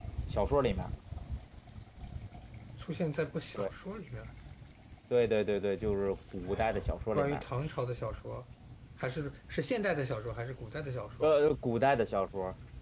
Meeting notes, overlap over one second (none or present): none